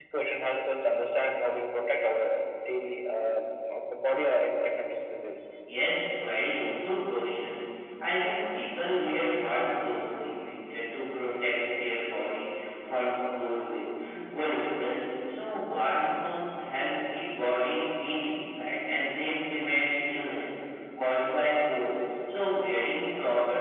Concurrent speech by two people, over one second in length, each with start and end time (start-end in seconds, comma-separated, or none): none